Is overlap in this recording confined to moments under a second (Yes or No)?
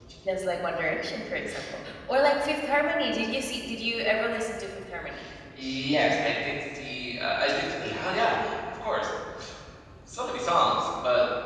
Yes